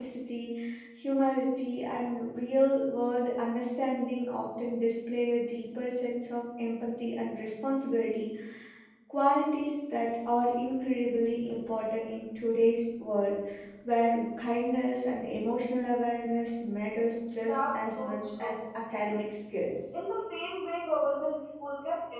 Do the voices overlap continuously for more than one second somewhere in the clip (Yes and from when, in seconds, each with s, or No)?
Yes, from 17.4 s